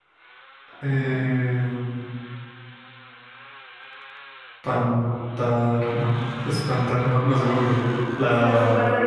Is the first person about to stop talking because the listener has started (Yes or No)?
Yes